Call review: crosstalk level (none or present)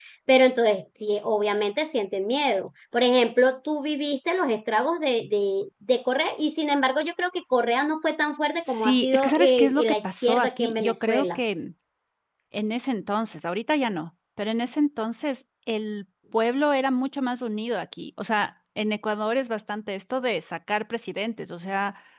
present